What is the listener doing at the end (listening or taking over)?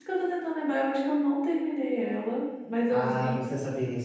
taking over